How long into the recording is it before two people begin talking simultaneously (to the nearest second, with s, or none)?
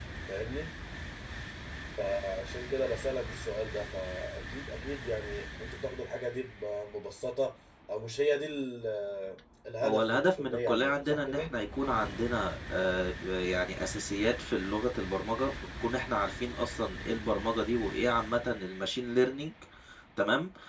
10 s